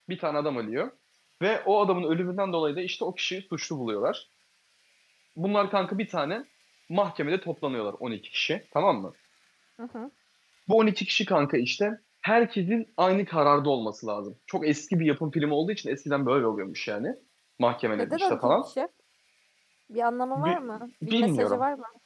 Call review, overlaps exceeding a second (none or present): present